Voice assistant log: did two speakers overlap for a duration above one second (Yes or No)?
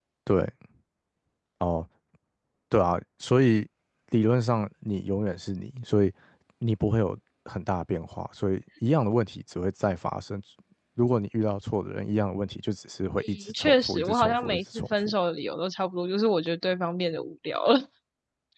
Yes